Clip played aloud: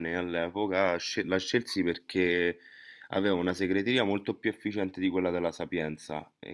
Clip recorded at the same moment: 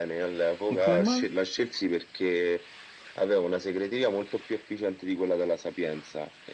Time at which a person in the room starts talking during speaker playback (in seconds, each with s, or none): 0.7 s